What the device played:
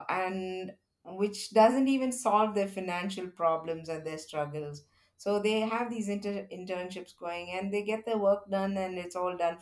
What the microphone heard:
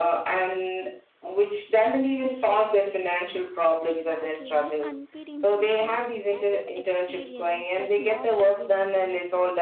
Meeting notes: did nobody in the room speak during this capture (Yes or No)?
No